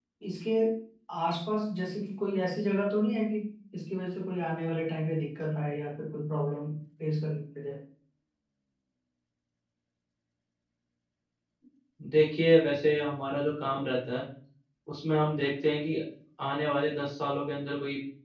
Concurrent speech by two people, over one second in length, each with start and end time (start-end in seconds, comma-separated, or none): none